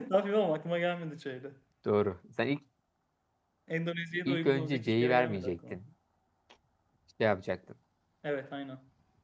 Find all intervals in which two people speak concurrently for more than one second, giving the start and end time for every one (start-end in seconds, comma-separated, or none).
4.2-5.8